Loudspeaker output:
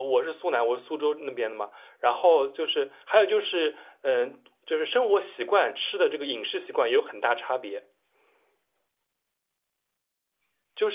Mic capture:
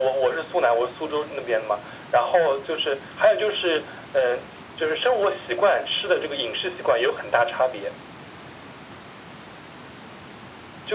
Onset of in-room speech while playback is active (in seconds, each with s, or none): none